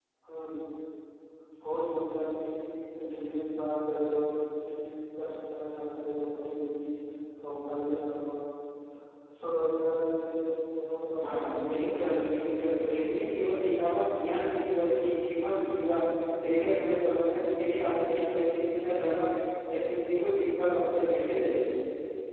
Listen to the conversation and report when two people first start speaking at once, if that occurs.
11.2 s

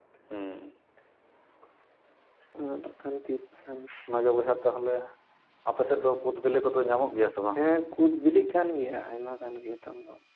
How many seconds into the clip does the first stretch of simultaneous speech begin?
none

